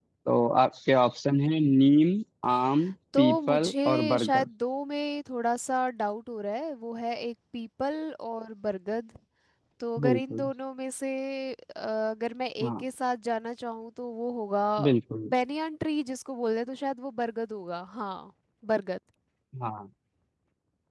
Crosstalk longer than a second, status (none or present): present